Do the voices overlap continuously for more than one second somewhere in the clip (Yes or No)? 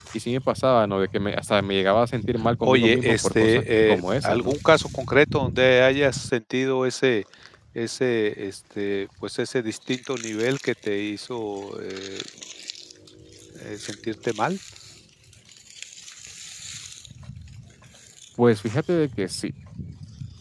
Yes